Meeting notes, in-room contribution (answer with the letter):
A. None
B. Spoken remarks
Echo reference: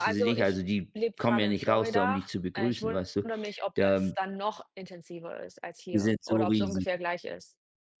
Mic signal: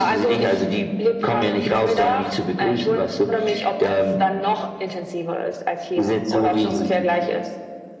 A